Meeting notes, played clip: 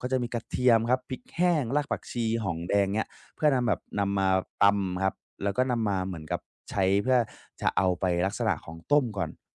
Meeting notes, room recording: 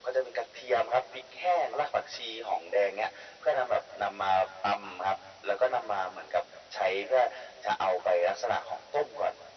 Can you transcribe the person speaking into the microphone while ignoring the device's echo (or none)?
none